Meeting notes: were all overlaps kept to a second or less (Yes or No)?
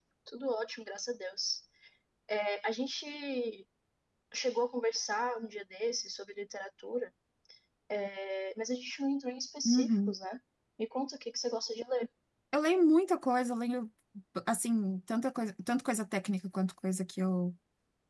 Yes